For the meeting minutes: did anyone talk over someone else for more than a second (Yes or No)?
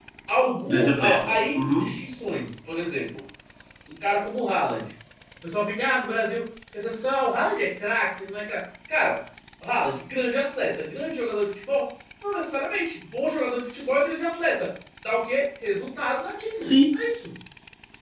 Yes